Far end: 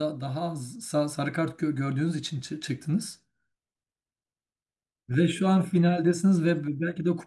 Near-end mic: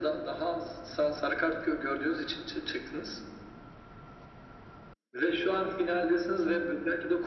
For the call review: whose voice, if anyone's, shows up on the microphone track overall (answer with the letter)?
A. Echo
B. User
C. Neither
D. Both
A